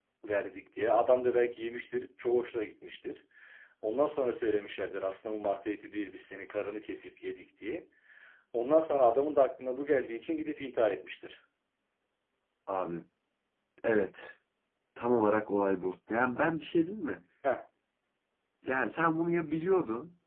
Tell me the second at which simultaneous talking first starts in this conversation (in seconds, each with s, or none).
none